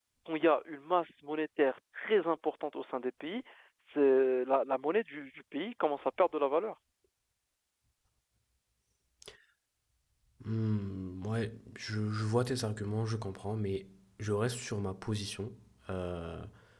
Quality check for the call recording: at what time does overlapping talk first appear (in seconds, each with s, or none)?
none